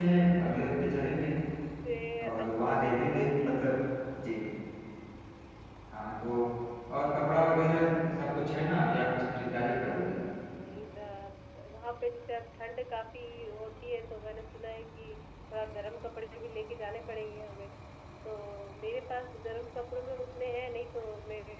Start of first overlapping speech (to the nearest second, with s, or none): 2 s